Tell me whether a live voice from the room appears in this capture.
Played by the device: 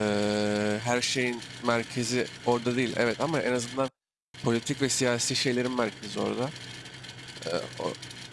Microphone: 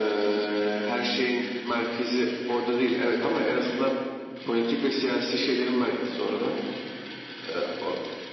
No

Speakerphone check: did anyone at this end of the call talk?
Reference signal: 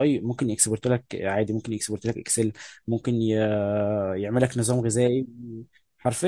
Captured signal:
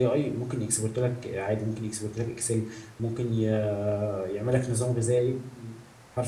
No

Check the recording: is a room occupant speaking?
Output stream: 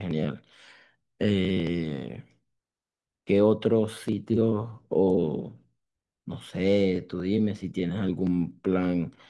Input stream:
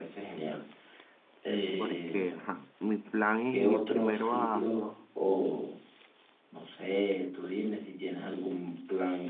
Yes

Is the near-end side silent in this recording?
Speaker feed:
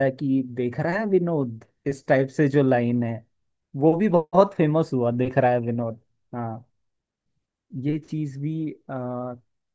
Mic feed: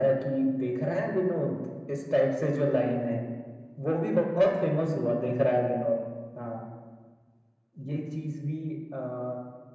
Yes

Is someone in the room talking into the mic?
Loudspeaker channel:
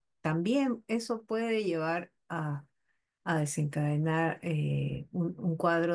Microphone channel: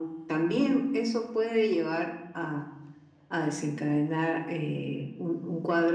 No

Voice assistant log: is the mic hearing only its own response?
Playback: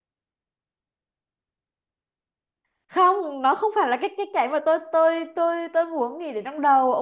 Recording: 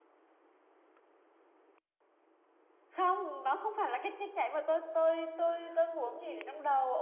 No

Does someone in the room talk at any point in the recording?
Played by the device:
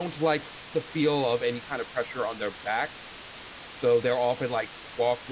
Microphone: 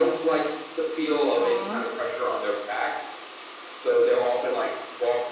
Yes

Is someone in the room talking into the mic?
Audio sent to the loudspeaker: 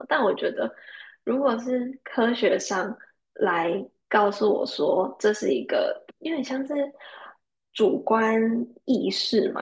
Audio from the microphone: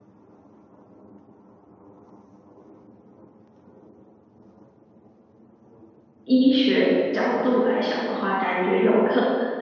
Yes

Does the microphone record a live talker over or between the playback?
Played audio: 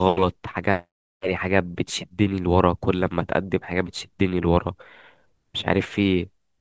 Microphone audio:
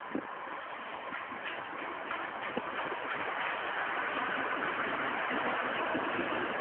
No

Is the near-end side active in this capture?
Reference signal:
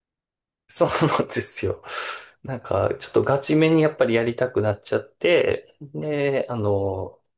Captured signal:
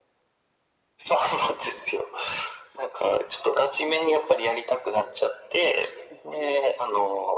No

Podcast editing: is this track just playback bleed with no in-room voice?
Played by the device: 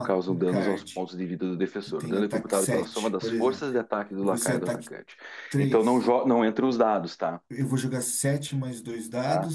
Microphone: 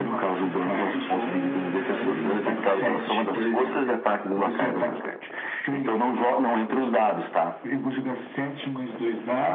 No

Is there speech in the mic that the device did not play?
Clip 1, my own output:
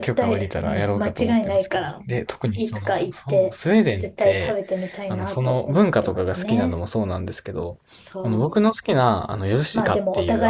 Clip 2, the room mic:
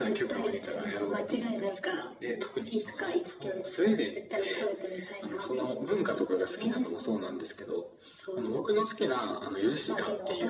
No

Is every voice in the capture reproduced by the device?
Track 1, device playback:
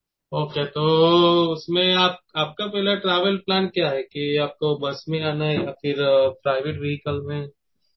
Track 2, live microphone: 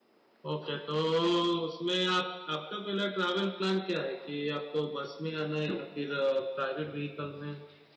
Yes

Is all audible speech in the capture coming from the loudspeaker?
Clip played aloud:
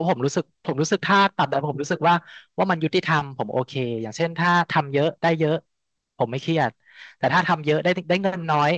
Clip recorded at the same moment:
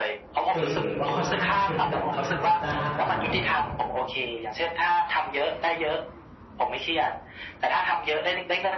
No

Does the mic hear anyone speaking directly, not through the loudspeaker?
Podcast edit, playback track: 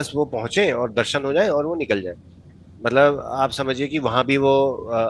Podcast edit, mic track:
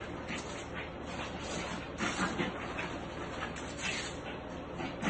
No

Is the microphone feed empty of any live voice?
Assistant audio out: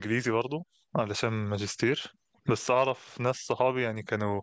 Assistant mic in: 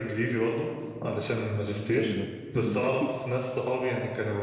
No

